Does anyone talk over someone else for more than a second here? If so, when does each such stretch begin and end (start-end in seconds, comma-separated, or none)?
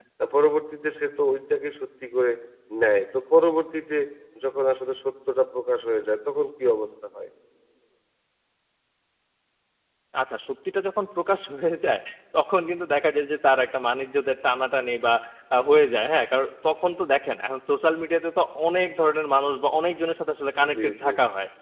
none